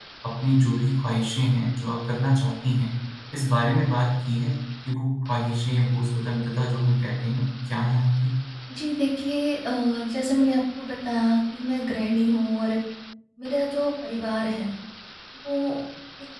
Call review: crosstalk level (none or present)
none